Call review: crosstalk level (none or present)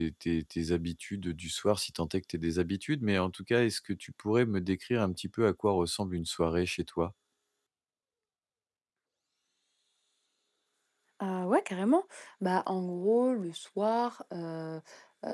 none